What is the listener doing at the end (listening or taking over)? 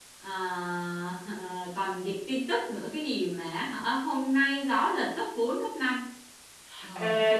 taking over